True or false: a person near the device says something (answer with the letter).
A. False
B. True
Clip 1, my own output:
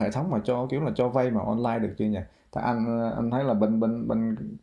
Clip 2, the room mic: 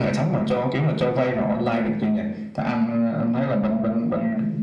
A